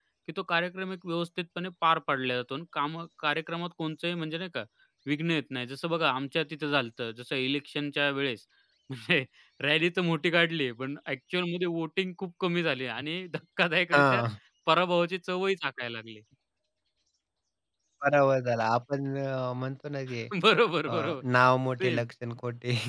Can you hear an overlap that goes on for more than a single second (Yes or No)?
No